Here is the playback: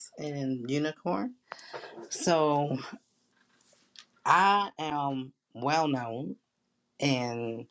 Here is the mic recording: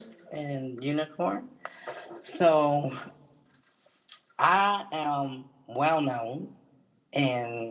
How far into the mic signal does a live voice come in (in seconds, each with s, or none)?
none